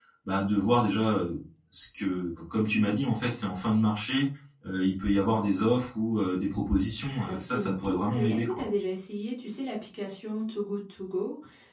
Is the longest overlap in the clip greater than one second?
Yes, from 7.0 s

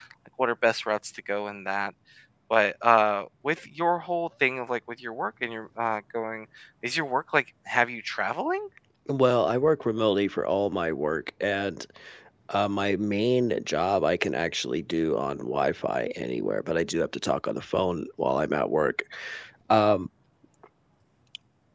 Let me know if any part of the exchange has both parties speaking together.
No

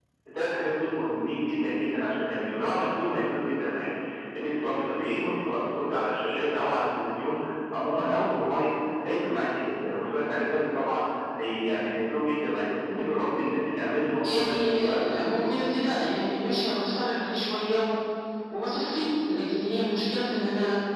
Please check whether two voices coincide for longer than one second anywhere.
Yes, from 14.2 s

